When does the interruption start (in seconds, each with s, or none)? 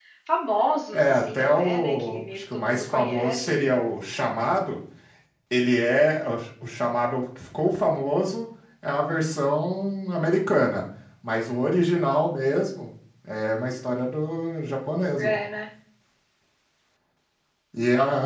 0.9 s